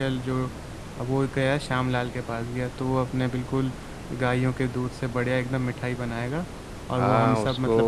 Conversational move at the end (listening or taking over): taking over